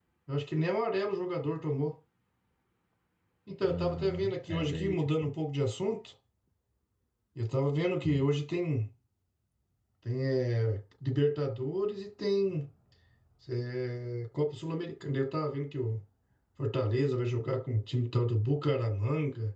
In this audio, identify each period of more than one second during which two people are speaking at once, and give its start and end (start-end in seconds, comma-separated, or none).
3.6-5.3